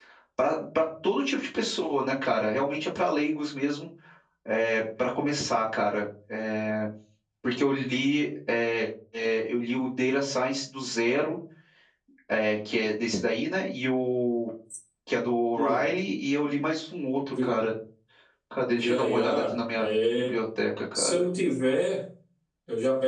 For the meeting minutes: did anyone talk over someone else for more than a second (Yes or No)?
Yes